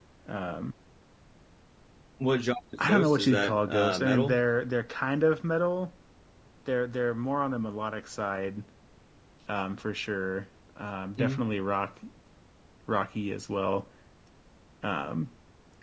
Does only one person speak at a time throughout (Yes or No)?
No